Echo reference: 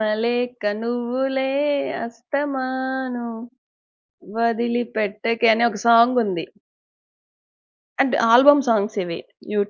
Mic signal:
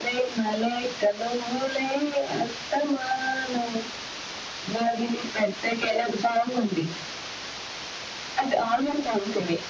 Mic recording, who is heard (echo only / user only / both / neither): echo only